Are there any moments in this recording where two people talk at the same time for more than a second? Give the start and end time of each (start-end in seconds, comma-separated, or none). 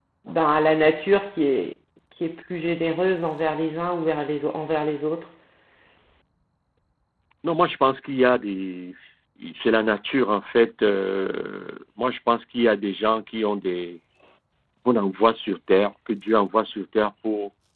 none